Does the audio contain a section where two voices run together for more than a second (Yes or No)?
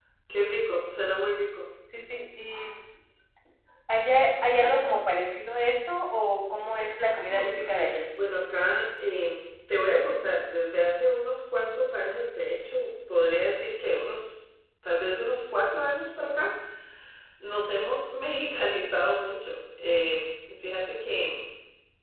No